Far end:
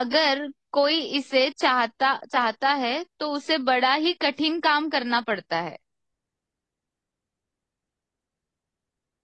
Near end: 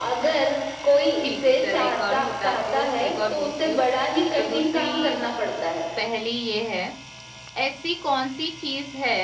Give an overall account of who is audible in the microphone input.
both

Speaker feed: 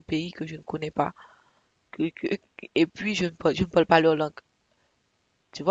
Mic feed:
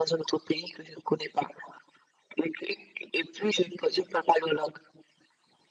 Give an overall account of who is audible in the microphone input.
echo only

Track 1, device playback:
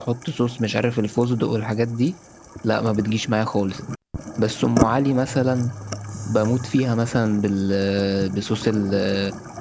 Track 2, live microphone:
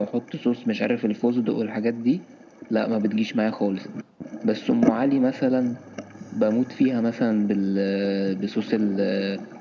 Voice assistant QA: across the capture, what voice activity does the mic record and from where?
echo only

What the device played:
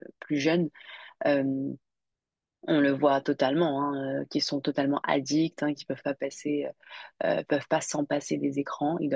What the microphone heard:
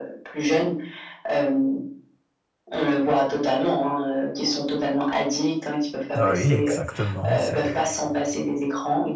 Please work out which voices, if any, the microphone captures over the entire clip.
both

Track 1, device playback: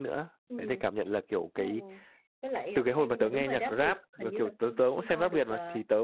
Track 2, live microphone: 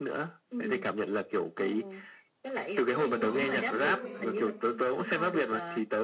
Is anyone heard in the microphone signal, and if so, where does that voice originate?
both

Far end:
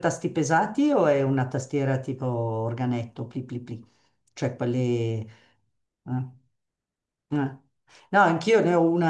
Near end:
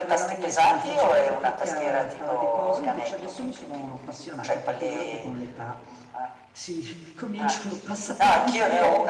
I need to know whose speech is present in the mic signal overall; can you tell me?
both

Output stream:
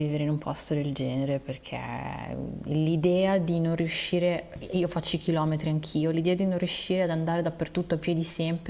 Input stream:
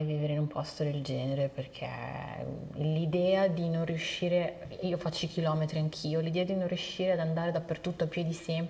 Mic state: echo only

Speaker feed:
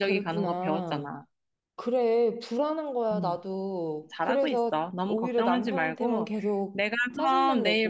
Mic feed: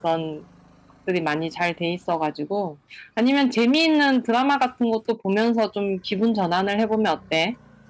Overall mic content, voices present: user only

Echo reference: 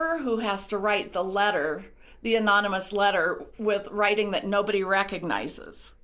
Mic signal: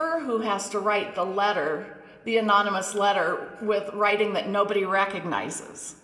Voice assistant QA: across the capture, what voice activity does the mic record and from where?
echo only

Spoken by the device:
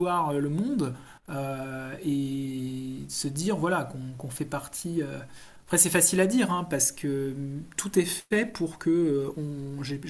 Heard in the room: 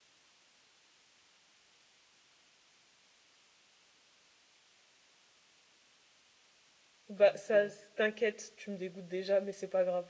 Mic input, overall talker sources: user only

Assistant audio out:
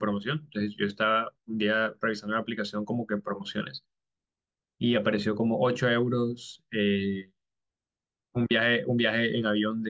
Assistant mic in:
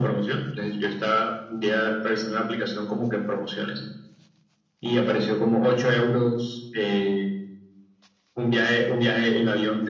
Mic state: echo only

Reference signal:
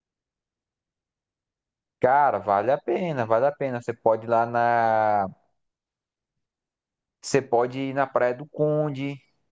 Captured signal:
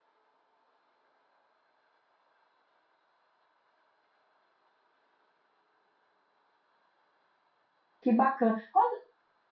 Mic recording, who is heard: user only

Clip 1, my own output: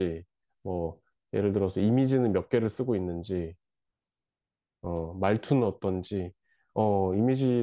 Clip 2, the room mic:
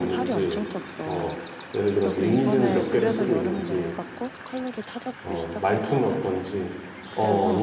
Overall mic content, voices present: both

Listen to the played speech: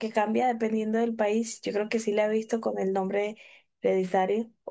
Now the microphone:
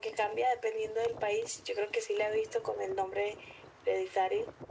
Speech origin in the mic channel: echo only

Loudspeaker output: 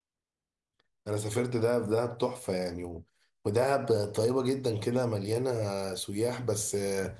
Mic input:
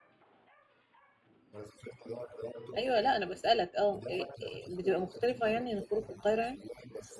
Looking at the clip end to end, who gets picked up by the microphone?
both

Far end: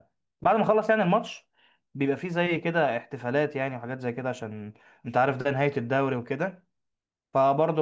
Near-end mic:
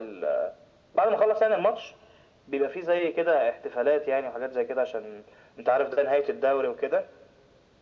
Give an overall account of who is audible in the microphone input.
echo only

